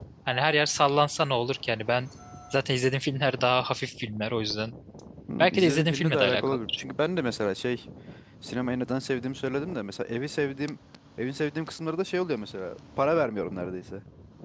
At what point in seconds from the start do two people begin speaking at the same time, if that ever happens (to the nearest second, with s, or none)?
5 s